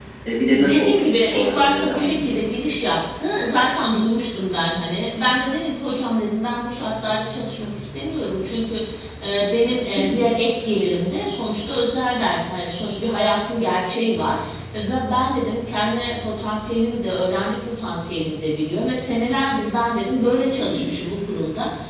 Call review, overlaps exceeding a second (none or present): present